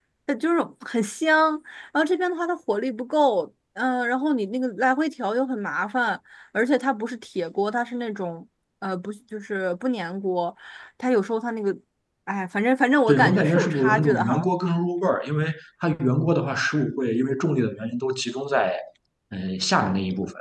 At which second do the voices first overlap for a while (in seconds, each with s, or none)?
13.1 s